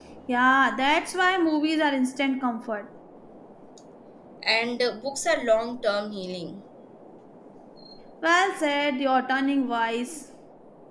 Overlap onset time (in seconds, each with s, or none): none